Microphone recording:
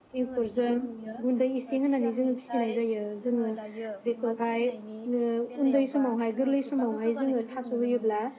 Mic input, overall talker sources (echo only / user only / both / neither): both